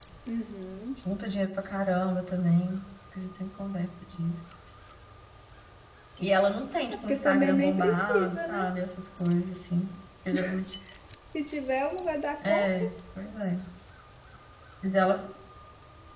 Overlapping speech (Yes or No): Yes